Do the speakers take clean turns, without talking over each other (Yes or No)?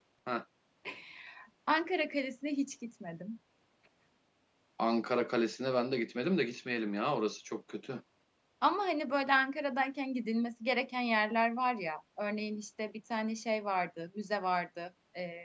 Yes